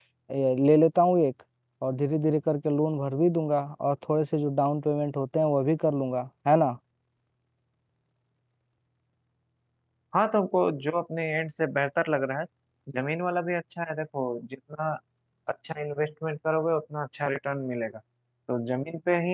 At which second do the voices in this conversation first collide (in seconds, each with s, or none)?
none